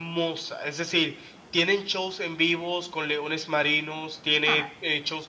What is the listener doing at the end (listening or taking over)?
listening